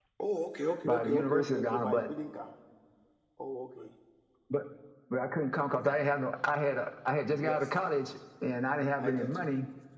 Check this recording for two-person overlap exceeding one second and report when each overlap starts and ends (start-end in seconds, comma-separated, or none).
0.8-2.1